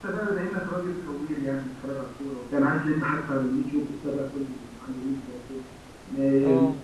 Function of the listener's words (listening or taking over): listening